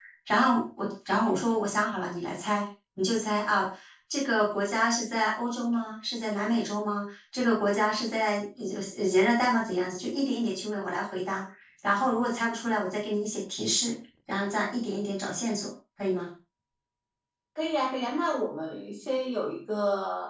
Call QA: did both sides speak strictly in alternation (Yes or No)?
Yes